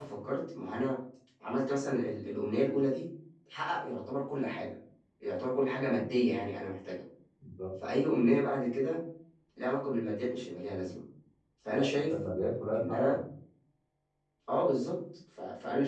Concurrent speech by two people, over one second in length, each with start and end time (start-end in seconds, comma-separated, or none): none